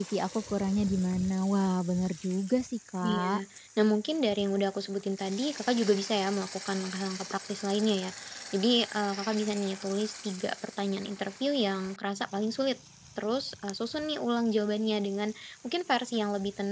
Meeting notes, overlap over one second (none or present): none